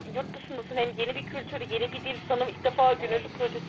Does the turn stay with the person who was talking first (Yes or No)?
Yes